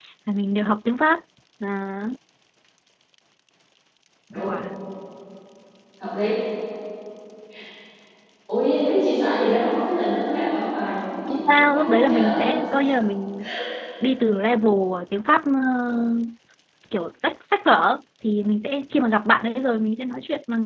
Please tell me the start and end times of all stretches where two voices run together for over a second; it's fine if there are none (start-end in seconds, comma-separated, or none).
11.3-12.5